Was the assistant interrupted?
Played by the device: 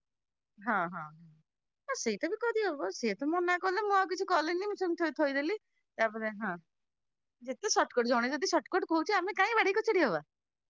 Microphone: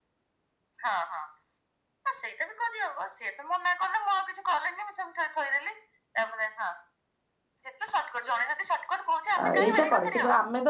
Yes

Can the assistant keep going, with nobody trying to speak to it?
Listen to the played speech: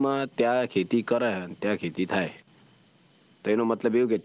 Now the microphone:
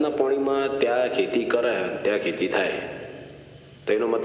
Yes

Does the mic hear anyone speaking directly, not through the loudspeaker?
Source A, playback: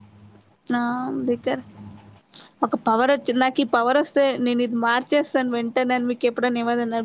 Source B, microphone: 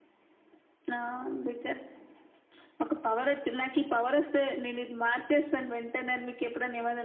No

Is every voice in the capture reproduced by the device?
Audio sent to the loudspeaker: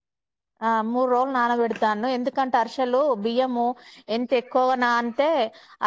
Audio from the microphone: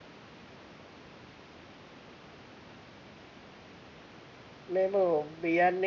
No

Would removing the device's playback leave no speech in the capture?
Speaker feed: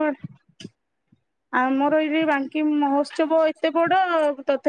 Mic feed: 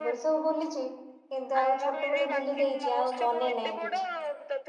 No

